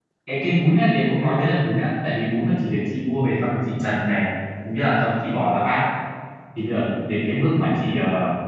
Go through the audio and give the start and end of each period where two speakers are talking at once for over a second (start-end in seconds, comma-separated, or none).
none